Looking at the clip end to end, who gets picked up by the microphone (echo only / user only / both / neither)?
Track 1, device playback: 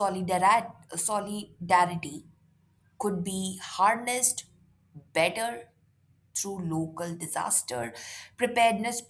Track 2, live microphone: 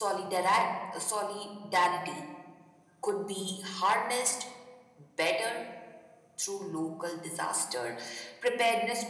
echo only